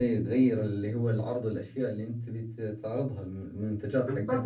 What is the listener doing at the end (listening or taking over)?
taking over